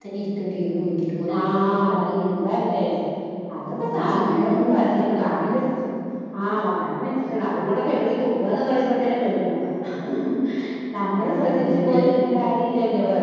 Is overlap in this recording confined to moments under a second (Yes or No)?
No